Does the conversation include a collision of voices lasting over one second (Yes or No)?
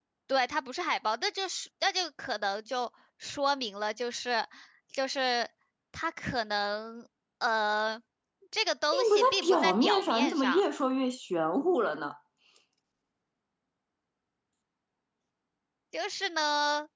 Yes